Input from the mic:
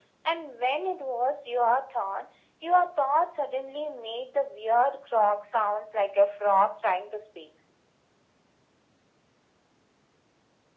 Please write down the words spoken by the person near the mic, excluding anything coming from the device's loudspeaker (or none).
none